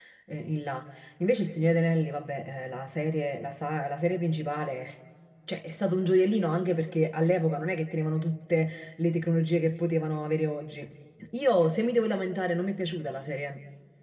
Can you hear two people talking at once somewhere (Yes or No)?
No